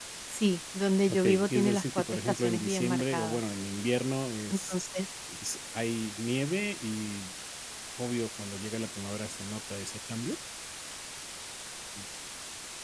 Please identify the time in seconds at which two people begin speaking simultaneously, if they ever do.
1.1 s

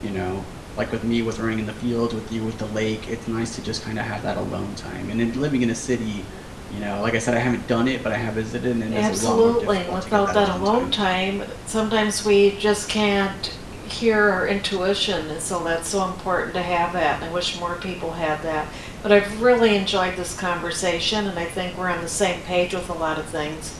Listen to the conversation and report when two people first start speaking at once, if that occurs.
8.9 s

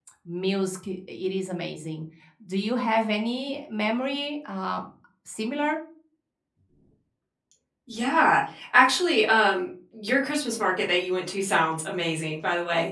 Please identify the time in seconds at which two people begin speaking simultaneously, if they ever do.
none

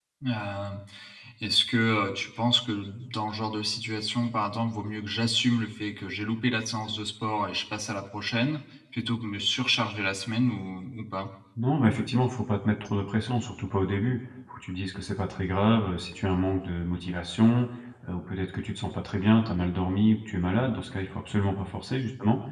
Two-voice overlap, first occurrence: none

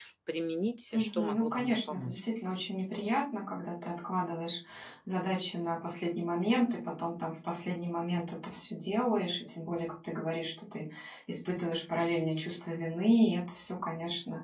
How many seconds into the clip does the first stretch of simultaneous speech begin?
0.9 s

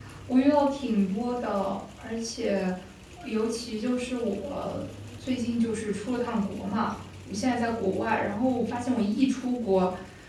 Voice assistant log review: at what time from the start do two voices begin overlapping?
none

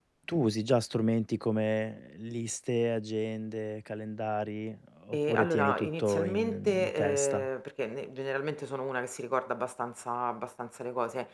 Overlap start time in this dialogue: 5.1 s

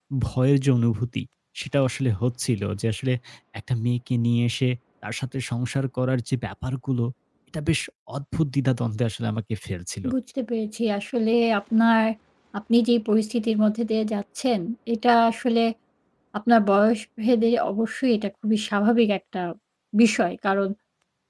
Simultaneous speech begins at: none

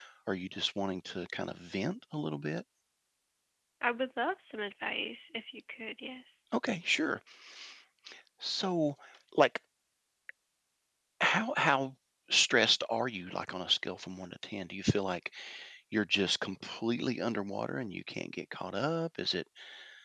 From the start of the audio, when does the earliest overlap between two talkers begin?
none

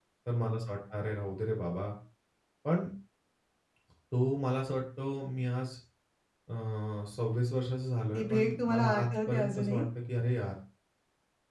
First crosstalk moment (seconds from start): 8.1 s

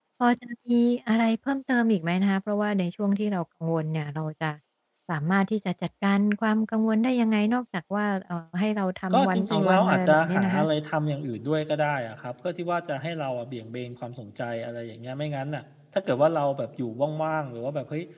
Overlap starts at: 9.1 s

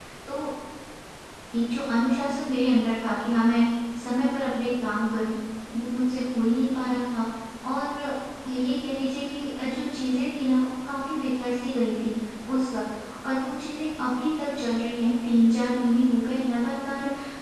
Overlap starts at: none

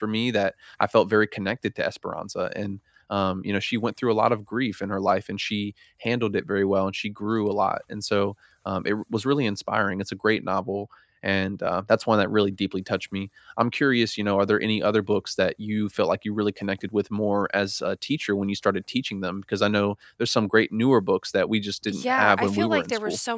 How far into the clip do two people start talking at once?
21.9 s

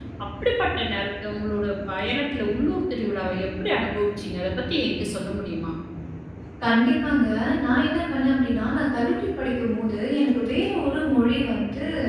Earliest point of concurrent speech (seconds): none

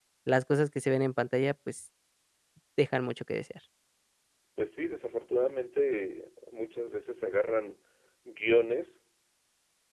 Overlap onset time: none

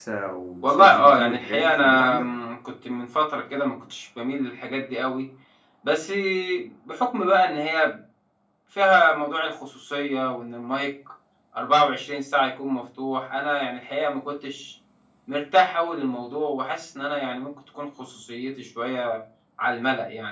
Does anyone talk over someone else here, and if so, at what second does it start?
0.6 s

